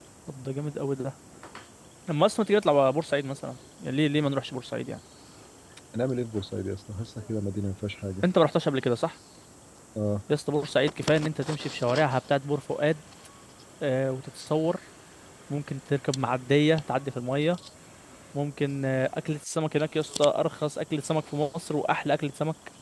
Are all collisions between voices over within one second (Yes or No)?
Yes